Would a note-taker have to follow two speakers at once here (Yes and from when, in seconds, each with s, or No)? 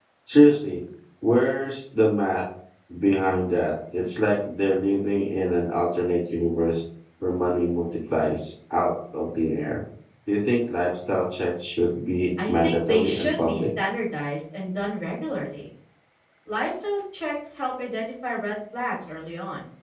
Yes, from 12.4 s